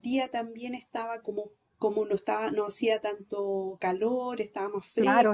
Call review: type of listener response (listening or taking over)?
taking over